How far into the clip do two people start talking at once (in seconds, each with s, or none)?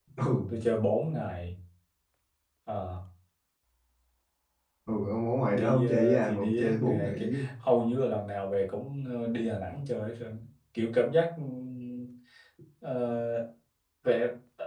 5.5 s